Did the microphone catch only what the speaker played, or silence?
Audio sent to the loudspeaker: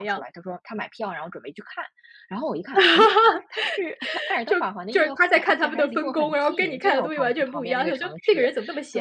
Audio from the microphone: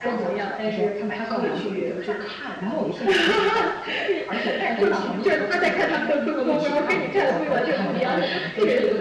No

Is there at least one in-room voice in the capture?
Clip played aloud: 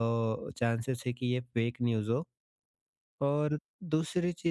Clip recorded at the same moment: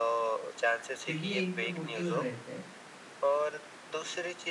Yes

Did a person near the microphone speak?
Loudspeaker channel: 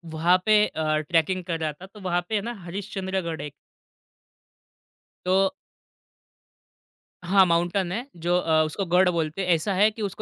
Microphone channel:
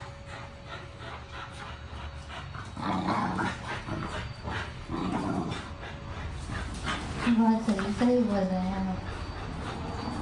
Yes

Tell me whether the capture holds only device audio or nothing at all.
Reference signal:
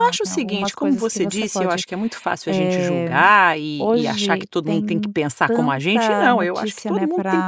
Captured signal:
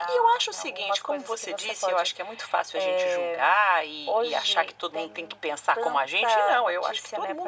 Yes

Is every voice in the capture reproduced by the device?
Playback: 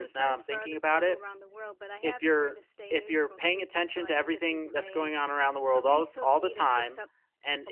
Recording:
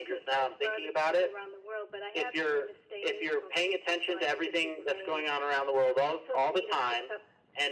Yes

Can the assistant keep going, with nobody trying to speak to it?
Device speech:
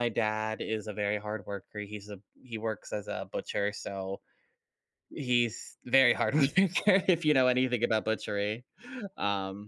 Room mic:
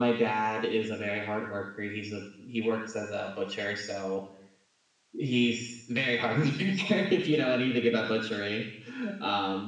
Yes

